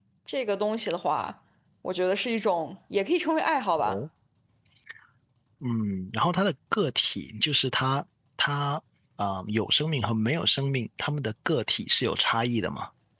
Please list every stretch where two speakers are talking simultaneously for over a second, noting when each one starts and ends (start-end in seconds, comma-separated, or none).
none